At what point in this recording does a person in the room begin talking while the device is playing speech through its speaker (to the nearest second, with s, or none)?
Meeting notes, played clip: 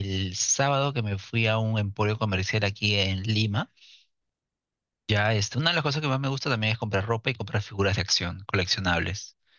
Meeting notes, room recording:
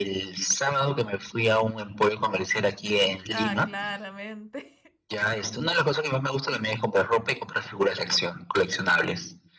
3 s